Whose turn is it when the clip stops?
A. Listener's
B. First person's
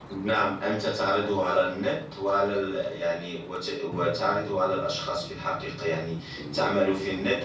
B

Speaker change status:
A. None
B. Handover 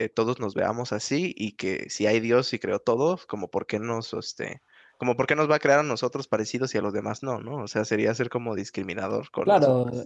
B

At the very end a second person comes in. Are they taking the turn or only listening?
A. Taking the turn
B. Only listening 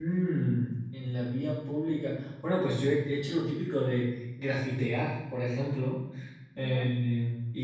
B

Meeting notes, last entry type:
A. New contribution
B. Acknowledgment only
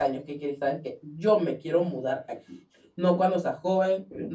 B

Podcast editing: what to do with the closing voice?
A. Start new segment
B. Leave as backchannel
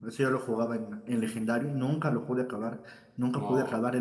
B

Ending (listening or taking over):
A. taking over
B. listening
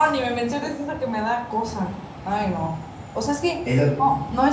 B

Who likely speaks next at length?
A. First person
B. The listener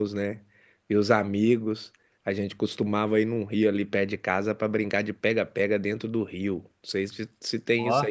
A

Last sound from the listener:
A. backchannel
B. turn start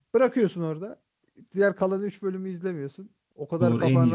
B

